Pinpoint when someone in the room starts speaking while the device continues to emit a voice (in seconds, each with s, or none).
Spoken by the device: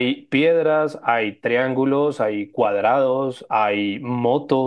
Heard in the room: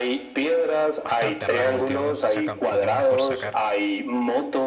1.0 s